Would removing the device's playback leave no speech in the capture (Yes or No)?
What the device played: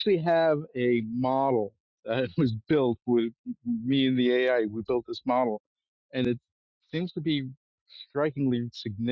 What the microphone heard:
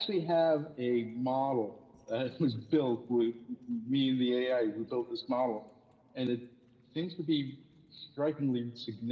Yes